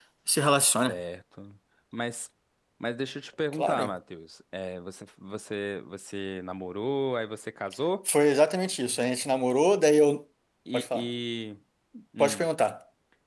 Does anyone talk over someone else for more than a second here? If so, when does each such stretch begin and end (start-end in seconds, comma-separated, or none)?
none